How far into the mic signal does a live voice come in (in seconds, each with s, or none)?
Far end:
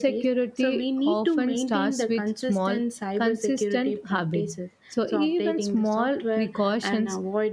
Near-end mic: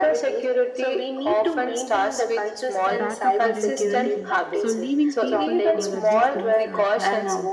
2.9 s